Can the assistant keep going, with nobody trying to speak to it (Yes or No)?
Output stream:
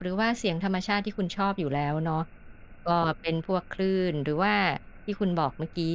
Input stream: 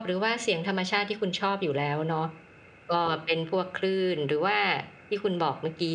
Yes